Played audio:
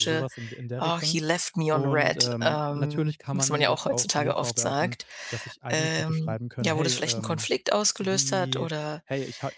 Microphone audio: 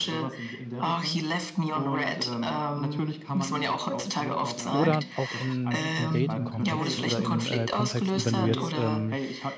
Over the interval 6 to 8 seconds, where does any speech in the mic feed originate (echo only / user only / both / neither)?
both